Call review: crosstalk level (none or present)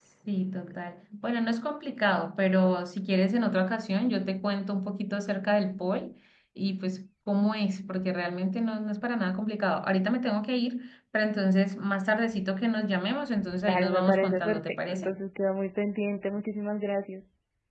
present